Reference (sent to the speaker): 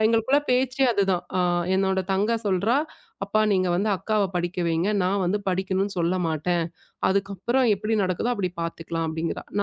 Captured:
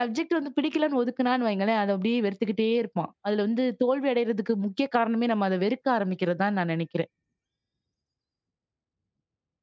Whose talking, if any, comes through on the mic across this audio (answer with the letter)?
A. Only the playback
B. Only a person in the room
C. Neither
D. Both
B